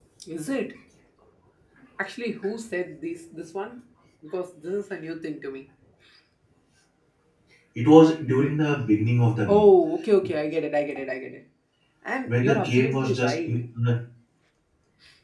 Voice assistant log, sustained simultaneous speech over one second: present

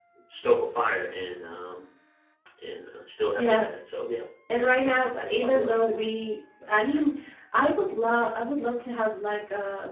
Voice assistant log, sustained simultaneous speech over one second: present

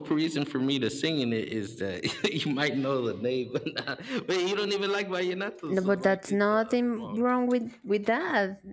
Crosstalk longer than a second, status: present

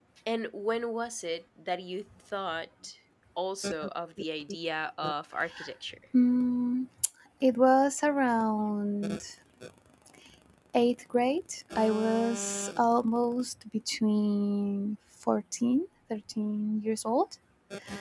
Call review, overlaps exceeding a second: none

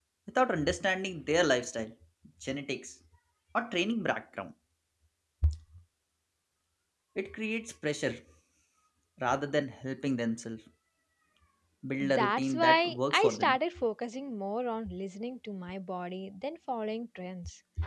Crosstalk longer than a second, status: present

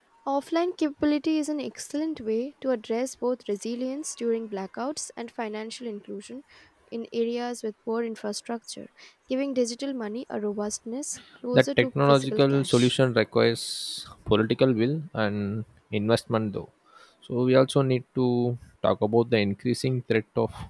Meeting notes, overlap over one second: present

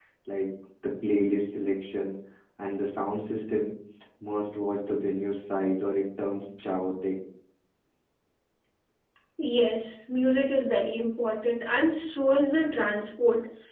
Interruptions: none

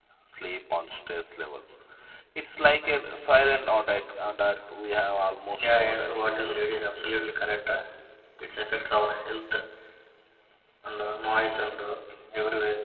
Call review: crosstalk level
present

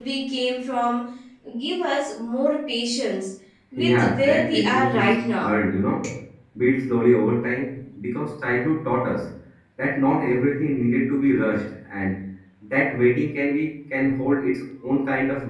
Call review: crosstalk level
present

